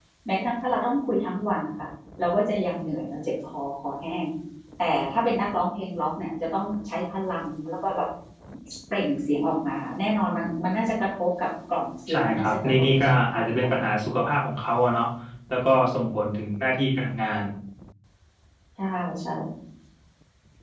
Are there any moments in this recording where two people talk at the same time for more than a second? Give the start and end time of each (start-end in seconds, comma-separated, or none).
12.1-13.8